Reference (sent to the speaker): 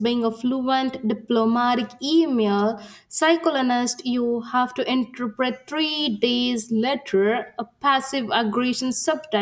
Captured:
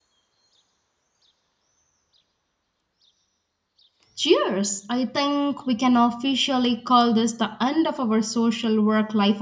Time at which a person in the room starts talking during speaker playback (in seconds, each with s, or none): 4.1 s